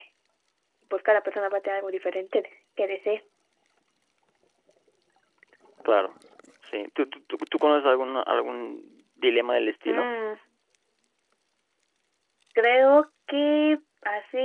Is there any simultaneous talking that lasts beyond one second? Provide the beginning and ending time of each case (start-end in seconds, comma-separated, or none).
none